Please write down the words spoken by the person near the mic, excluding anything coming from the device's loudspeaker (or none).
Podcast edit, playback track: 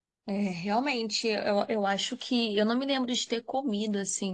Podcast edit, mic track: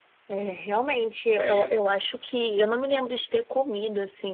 é isso.